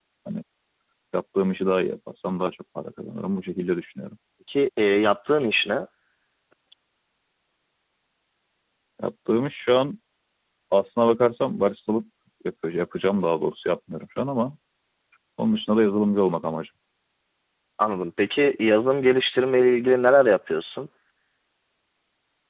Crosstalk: none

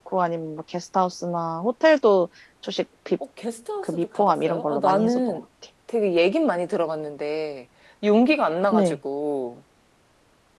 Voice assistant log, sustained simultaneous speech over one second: present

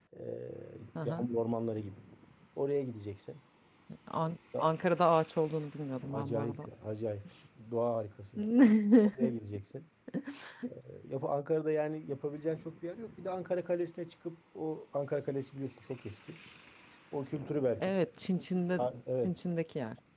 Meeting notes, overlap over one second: none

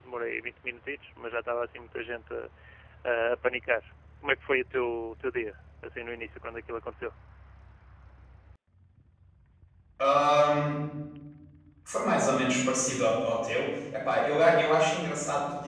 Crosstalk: none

